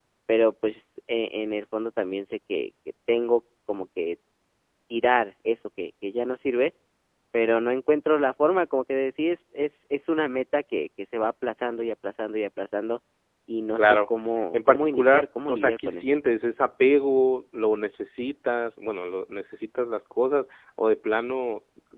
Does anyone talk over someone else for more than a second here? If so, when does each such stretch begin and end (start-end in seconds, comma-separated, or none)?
14.5-16.1